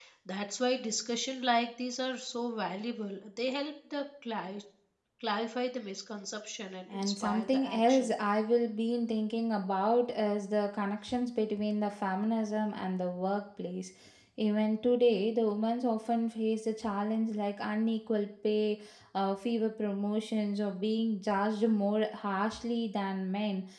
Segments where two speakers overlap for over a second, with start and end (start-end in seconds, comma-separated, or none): 6.9-8.1